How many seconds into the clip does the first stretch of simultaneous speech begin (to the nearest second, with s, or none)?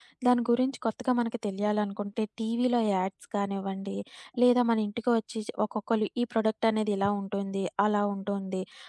none